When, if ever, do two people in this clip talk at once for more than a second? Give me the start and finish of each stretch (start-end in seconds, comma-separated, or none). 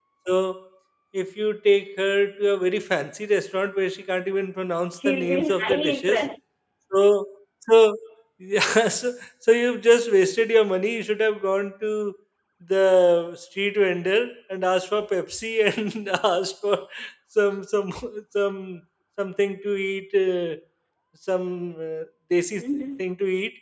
5.0-6.2